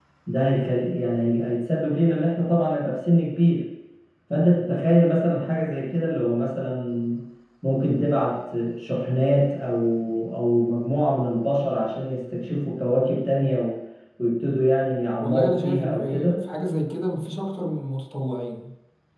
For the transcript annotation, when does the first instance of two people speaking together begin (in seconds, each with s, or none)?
15.2 s